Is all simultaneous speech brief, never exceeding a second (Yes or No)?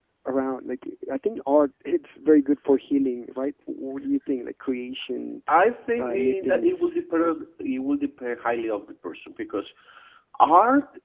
No